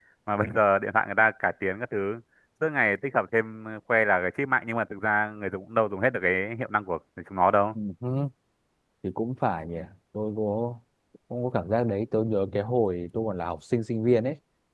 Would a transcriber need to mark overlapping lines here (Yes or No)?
No